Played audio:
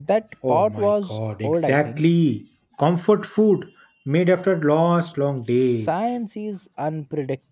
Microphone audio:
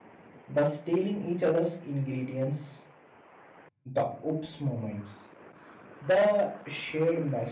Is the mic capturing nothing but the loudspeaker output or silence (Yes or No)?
No